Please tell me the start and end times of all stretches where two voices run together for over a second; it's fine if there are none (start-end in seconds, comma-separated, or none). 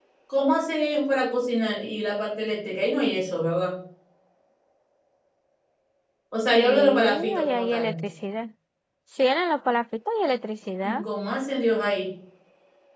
6.5-7.9